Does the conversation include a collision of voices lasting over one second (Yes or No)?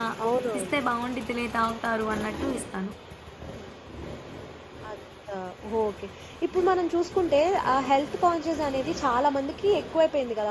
No